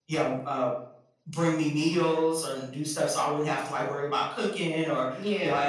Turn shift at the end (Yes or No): No